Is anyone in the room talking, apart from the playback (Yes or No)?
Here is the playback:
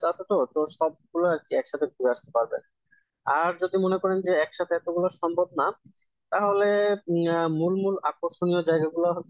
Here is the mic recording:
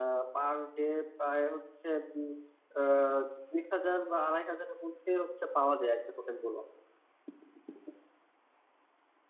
Yes